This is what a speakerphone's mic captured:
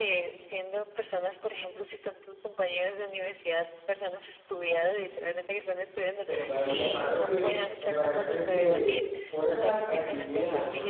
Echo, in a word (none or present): present